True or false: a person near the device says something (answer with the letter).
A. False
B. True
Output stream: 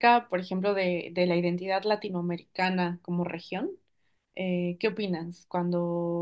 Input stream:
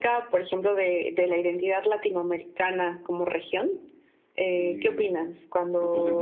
B